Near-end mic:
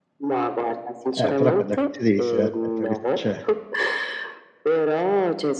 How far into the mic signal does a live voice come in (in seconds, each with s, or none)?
1.2 s